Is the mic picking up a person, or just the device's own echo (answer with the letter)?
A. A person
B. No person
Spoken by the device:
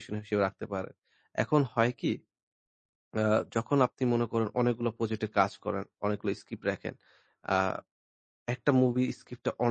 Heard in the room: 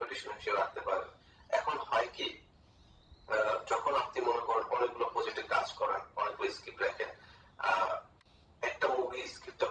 B